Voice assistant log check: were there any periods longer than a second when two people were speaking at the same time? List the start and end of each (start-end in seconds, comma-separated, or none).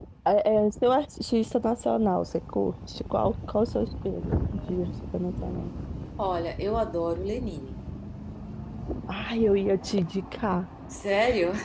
none